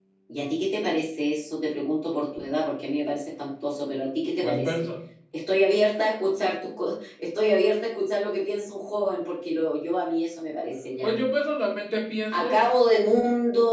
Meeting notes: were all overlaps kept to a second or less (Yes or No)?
Yes